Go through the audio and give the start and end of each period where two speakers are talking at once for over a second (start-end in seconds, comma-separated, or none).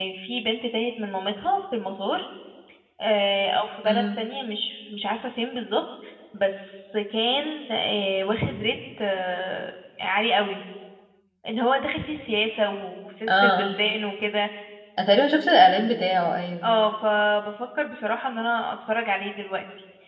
none